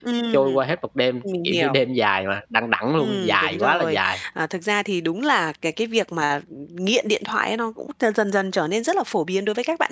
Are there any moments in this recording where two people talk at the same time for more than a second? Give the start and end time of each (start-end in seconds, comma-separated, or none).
3.0-4.2